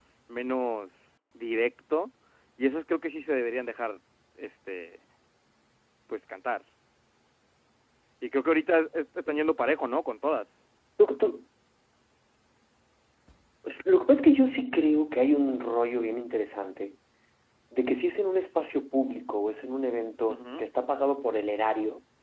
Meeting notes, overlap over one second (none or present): none